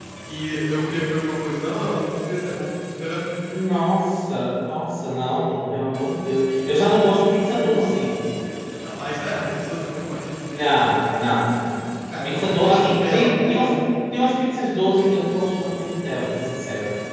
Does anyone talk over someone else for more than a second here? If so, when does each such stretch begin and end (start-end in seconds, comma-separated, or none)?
12.2-13.7